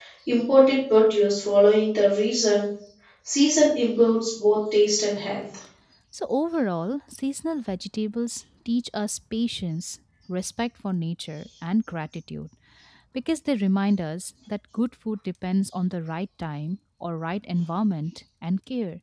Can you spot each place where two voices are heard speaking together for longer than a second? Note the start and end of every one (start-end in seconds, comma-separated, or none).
none